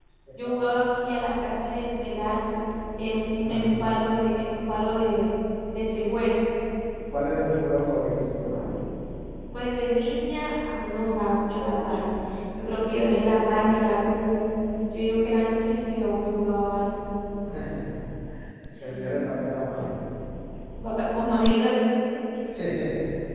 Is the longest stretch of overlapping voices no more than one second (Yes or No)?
Yes